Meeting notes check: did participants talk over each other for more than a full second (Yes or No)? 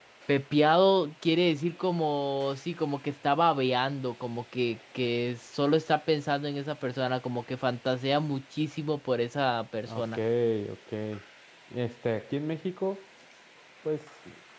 No